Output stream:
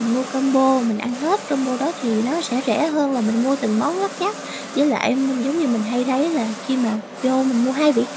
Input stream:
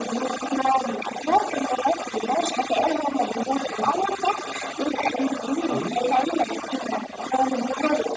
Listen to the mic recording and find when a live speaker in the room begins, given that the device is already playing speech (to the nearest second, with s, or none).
6 s